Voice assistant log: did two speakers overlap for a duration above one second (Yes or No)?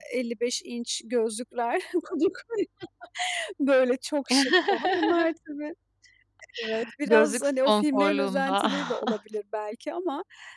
Yes